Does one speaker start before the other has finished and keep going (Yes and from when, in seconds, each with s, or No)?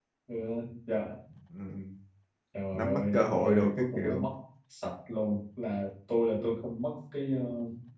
Yes, from 2.7 s